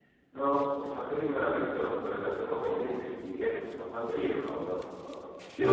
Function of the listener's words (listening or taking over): taking over